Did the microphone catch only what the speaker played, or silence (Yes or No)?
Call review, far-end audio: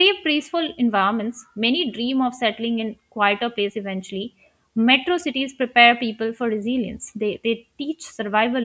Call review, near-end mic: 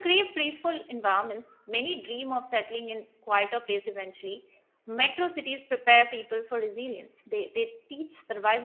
Yes